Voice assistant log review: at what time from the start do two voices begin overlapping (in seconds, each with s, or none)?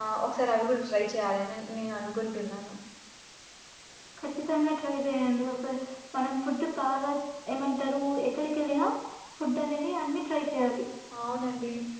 none